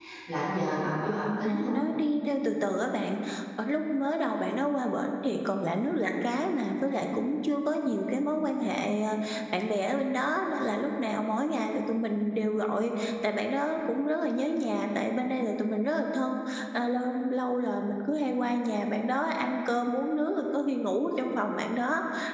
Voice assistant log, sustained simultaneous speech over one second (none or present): none